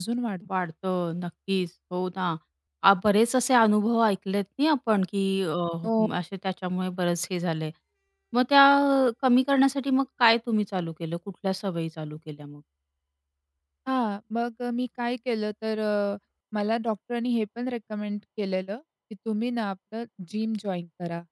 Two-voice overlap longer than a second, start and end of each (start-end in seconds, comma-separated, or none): none